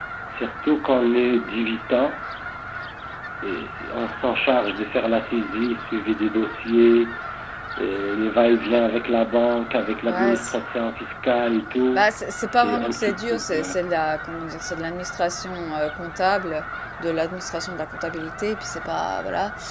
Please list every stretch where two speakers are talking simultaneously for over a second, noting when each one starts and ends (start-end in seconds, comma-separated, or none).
12.5-13.7